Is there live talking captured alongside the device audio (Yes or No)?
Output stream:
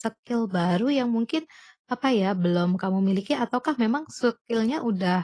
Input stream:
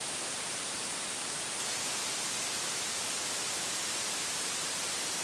No